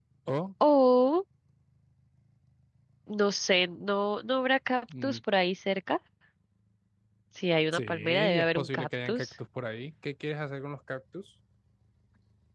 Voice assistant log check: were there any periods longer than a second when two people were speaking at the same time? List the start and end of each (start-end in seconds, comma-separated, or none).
7.7-9.3